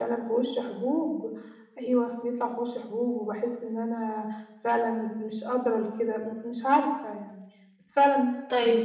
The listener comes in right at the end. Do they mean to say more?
Yes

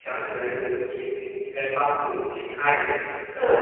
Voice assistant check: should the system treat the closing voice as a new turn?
Yes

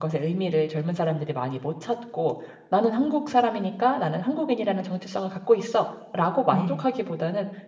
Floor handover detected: No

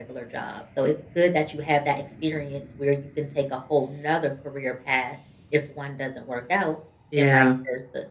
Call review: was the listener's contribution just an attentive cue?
Yes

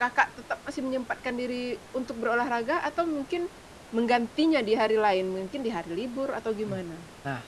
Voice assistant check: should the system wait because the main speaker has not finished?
No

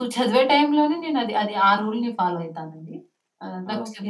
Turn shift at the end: No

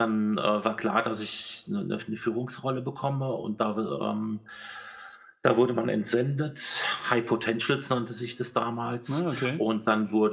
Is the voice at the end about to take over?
No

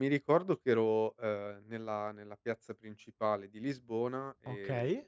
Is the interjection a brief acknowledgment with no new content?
Yes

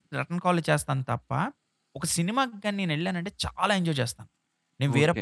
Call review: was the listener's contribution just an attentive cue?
No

